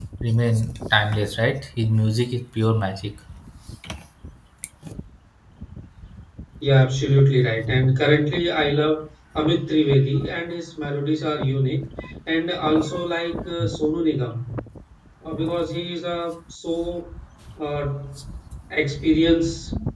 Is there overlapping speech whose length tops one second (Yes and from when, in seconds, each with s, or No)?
No